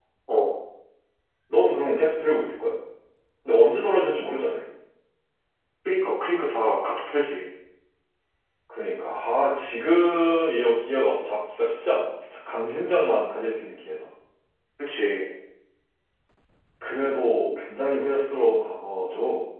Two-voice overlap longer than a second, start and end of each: none

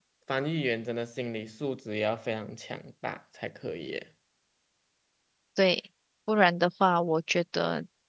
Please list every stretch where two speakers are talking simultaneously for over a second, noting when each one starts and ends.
none

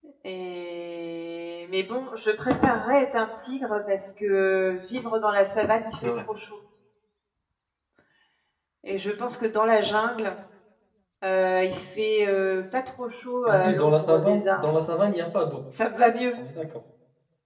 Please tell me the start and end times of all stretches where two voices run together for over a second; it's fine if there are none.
13.5-14.7

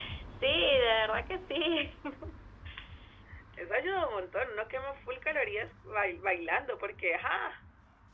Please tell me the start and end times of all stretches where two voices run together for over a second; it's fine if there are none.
none

